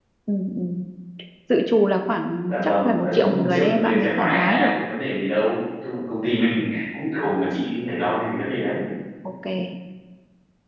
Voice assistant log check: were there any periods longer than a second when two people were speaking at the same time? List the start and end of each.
2.5-4.7

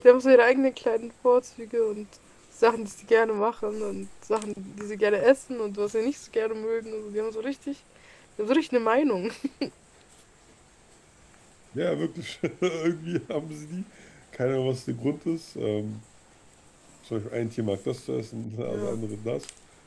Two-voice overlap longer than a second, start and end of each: none

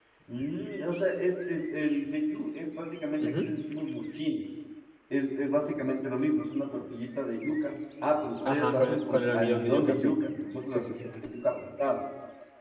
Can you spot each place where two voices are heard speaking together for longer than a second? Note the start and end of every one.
8.4-10.2

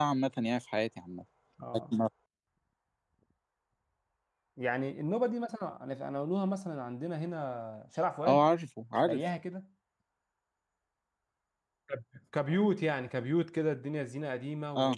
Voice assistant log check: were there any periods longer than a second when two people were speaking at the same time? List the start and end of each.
none

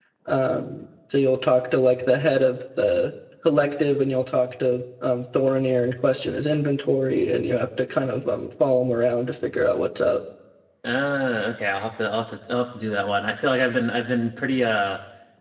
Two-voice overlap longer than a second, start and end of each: none

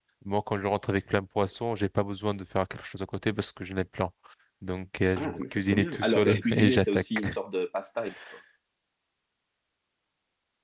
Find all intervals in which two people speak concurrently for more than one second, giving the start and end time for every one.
5.2-7.2

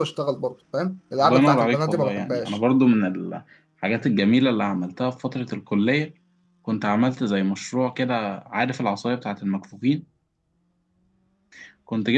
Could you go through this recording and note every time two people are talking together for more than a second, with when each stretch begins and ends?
1.2-2.6

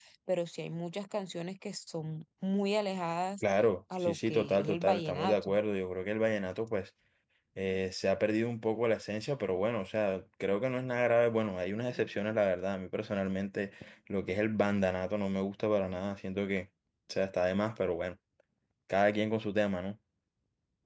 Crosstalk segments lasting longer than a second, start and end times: 4.0-5.6

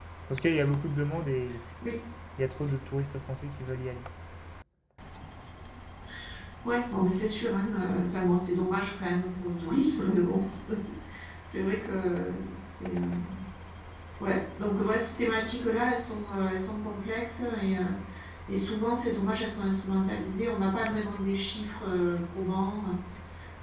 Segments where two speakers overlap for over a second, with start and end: none

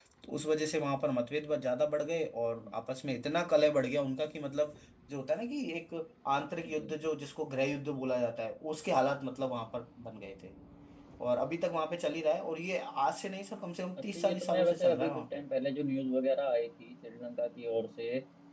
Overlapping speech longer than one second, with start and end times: 14.1-15.4

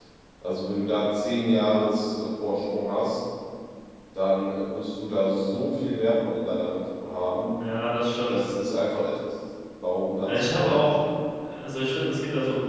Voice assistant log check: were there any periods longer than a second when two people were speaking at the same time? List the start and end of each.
none

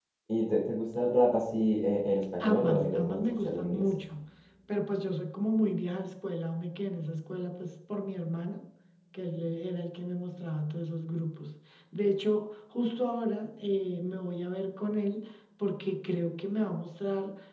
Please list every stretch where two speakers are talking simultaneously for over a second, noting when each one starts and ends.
2.4-3.9

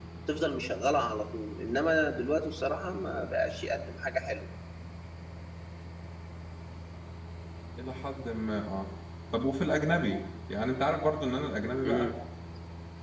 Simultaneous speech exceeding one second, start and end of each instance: none

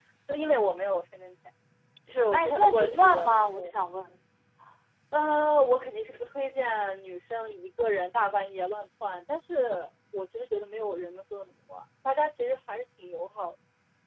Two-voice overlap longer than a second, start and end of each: 2.3-3.7

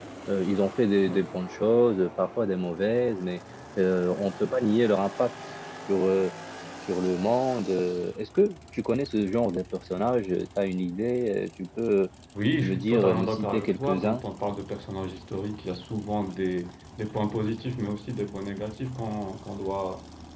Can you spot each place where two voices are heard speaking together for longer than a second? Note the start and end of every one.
12.6-14.2

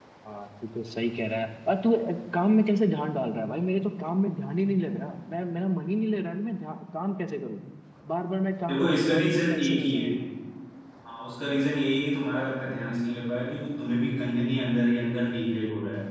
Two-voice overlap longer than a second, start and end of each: 8.7-10.1

